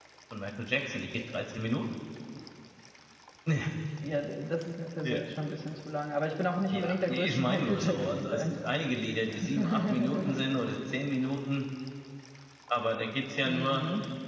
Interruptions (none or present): present